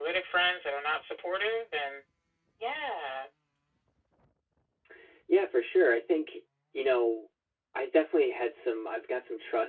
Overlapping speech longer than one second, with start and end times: none

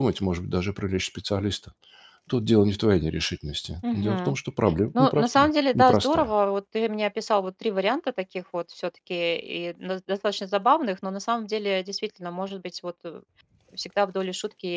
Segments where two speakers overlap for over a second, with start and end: 5.0-6.3

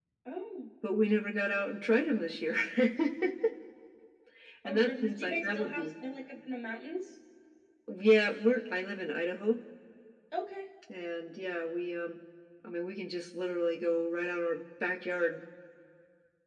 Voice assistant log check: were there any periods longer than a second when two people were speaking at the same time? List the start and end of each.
4.7-5.9

